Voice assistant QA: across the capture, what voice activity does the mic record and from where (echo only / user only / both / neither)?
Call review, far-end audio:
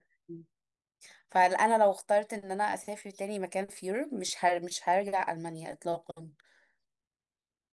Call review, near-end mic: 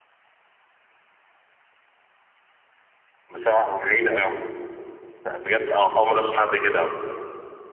user only